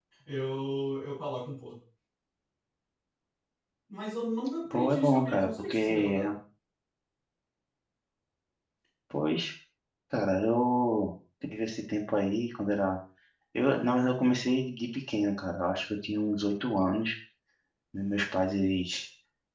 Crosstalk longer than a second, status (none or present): present